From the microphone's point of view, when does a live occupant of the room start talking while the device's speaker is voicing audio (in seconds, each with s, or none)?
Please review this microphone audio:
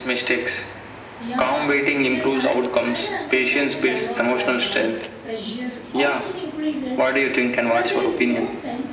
1.2 s